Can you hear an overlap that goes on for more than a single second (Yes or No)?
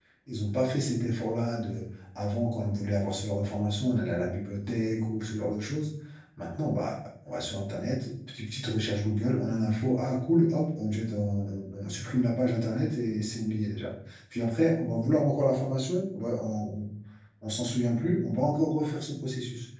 No